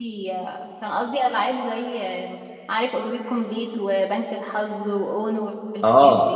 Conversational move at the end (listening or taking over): taking over